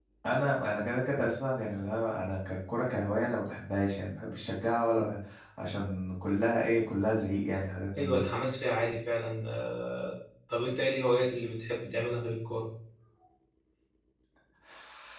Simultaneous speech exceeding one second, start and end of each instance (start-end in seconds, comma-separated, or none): none